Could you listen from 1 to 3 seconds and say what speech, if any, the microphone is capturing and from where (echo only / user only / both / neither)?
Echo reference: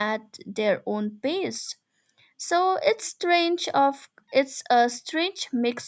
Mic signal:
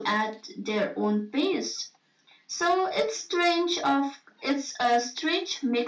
echo only